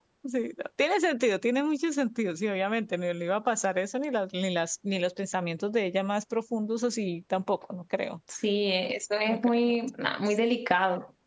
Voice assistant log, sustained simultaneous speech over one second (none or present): none